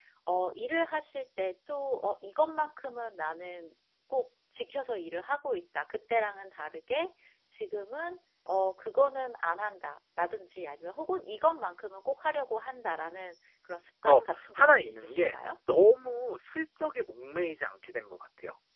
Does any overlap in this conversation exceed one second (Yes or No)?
Yes